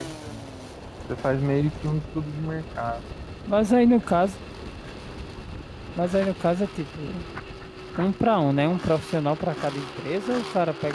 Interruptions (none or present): none